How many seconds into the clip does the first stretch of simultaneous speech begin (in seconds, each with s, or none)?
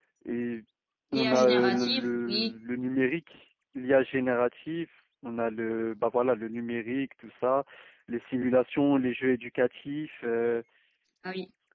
1.1 s